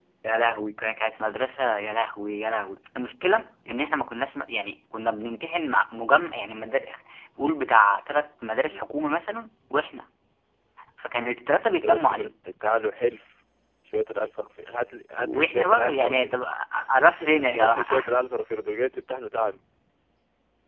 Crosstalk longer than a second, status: present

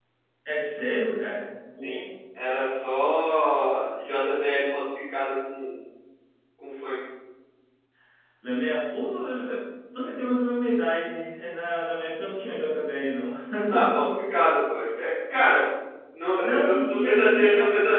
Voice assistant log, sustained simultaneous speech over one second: present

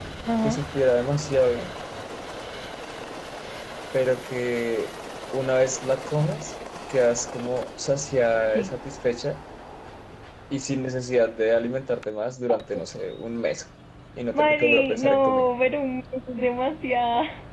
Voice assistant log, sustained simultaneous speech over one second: present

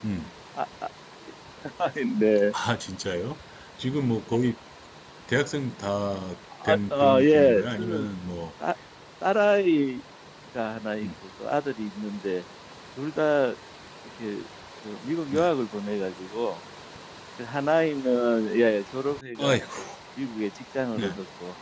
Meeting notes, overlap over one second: present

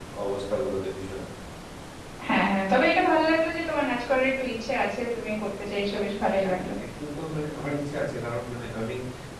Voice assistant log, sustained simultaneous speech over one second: none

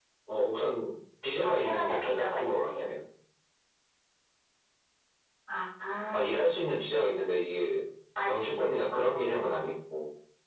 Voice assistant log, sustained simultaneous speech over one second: present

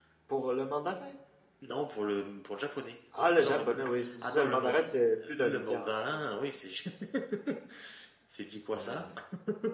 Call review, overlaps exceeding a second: present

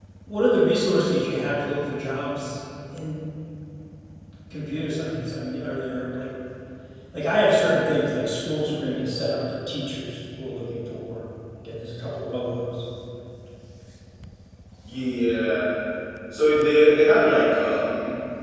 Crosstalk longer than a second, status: none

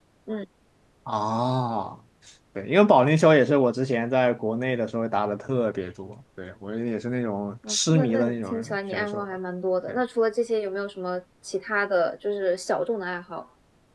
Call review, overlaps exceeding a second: present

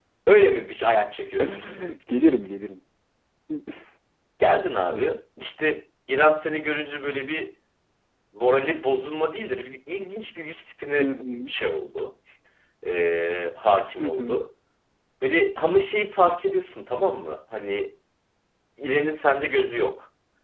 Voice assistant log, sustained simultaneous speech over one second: none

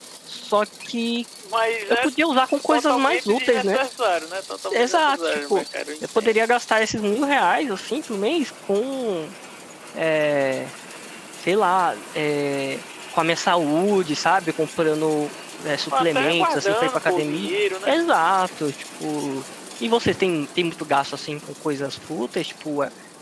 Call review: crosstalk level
present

